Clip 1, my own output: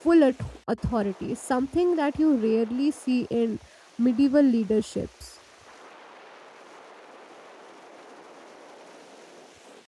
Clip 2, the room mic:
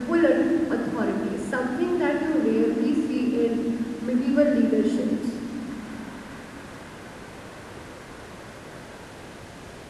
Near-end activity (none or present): none